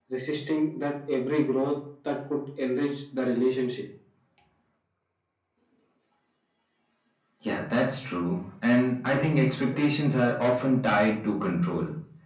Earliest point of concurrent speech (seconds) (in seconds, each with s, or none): none